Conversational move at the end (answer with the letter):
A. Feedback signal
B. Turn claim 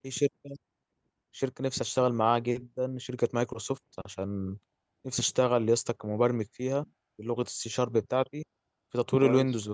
A